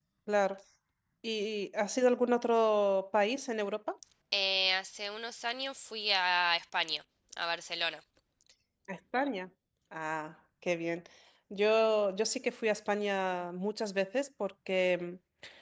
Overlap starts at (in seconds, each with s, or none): none